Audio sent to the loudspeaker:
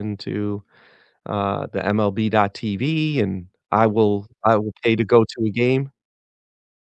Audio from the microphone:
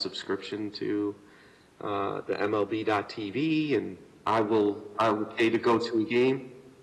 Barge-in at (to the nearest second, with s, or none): none